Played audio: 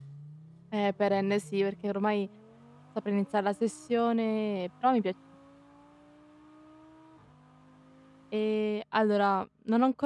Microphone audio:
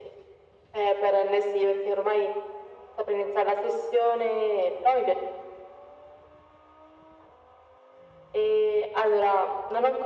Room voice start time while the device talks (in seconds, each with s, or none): none